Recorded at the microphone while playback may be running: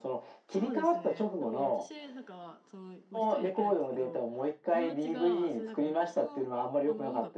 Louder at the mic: echo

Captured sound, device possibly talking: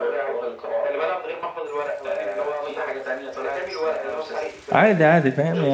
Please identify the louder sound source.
user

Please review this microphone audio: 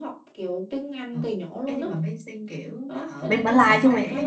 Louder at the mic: user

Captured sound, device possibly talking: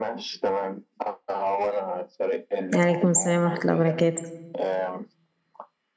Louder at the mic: user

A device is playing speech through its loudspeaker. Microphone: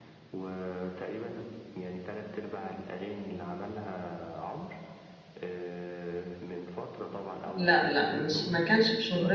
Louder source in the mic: user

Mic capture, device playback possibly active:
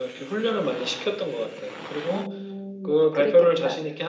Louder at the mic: echo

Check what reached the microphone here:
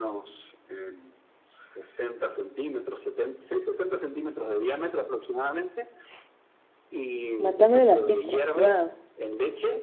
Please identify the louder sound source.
user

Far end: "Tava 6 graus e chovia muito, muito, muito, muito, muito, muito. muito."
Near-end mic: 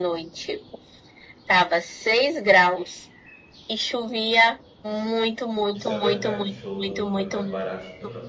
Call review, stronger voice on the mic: echo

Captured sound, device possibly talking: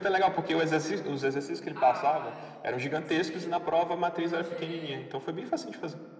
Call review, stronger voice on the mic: echo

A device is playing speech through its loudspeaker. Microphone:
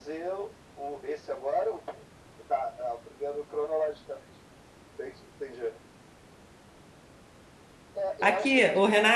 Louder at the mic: user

